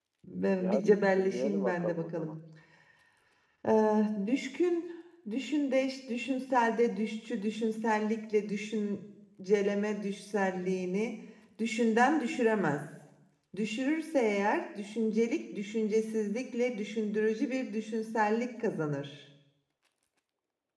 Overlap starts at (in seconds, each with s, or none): 0.6 s